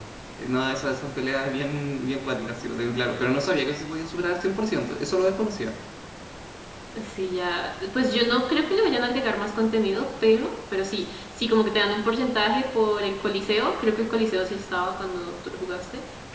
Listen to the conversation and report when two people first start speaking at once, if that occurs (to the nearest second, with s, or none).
none